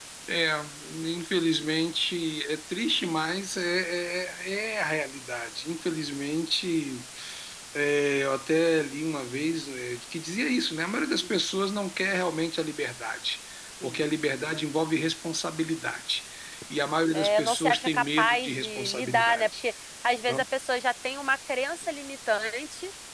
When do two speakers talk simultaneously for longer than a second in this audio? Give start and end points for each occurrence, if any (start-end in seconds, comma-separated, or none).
17.1-19.5